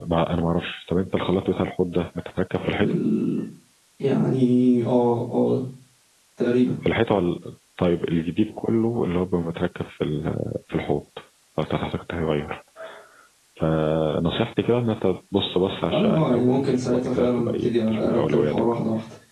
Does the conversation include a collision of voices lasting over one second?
Yes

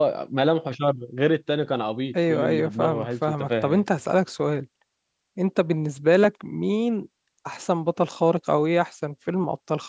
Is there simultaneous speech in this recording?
Yes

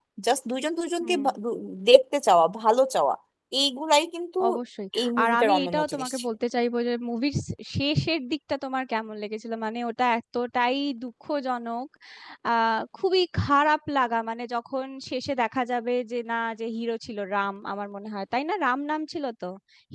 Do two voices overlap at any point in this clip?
Yes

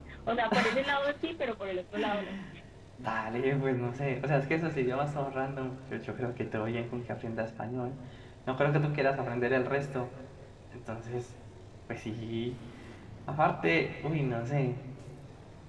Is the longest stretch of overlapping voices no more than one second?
Yes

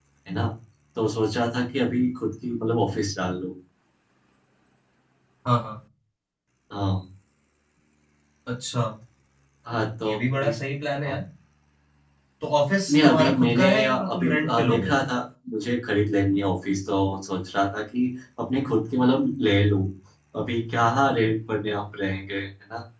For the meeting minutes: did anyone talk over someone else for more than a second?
Yes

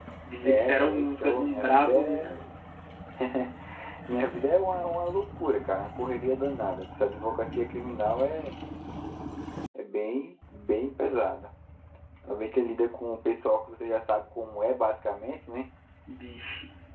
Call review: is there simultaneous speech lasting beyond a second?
Yes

